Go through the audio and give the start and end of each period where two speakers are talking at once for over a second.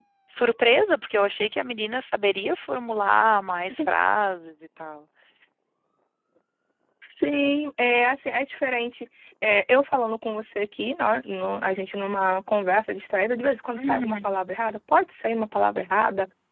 none

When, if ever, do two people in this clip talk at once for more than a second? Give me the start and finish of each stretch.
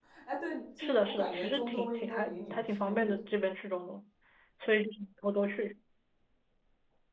0.8-3.1

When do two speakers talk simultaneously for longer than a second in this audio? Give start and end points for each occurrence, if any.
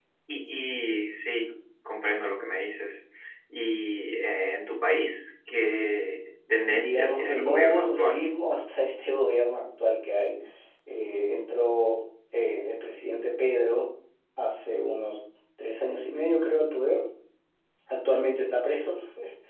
6.7-8.2

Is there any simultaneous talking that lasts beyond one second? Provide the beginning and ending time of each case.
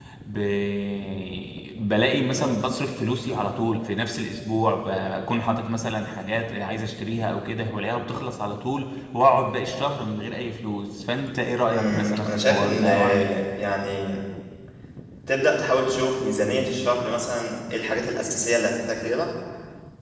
11.7-13.4

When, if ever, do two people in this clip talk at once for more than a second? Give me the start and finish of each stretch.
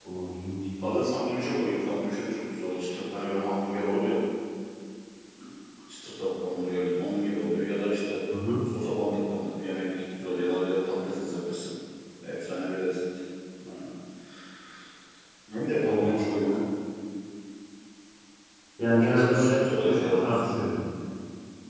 18.8-20.5

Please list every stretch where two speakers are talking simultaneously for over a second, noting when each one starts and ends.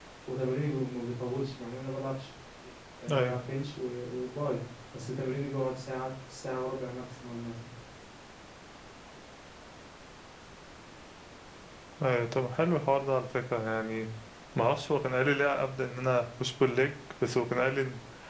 none

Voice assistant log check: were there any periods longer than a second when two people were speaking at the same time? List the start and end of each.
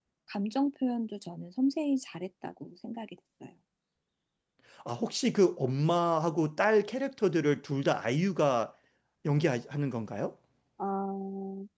none

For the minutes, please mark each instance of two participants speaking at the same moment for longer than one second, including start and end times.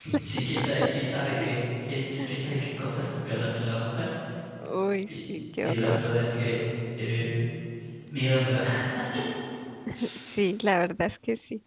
none

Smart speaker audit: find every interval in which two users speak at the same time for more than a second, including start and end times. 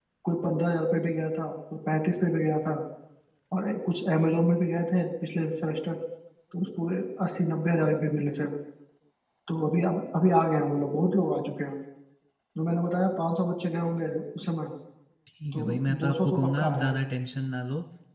15.5-16.9

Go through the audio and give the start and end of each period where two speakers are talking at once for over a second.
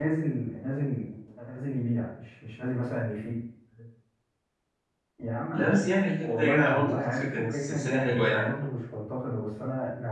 6.2-8.5

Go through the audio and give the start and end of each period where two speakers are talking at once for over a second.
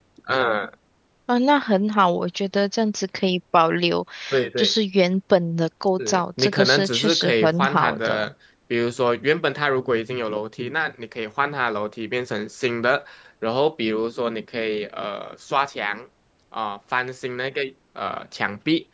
6.0-8.3

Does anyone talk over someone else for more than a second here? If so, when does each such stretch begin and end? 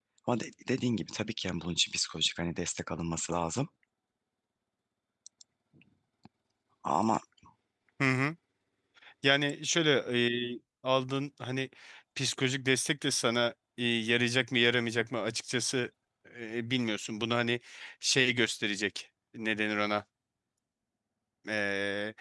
none

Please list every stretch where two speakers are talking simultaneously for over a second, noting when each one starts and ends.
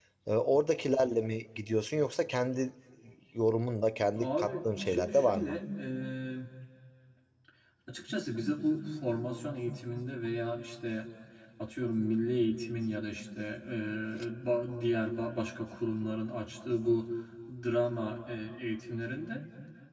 4.2-5.6

